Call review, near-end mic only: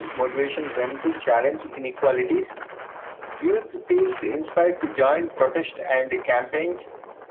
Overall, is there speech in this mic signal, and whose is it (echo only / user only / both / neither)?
echo only